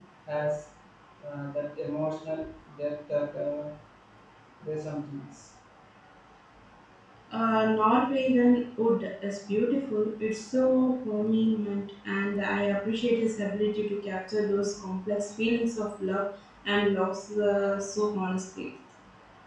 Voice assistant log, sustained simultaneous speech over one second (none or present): none